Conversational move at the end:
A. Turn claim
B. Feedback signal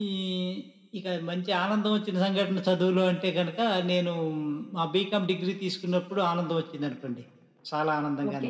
A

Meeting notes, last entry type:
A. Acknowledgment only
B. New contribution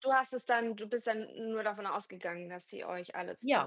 B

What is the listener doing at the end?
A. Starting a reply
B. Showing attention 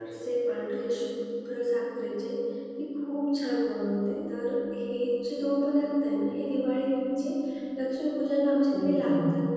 B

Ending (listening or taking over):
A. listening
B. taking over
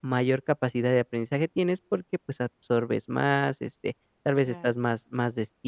A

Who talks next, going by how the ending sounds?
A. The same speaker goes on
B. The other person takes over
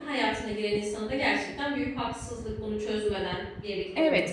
B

